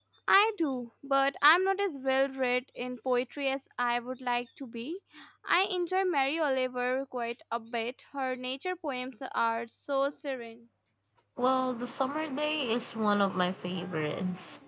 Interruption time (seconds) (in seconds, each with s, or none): none